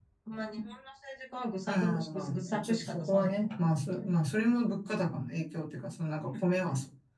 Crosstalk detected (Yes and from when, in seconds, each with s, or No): Yes, from 1.7 s